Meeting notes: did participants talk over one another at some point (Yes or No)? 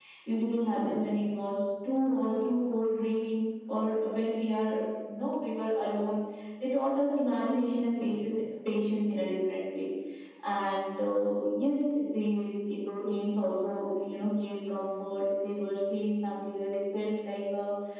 No